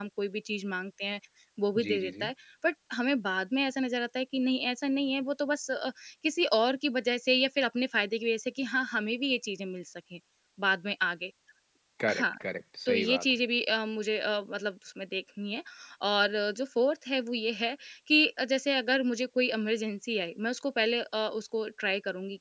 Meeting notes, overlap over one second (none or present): none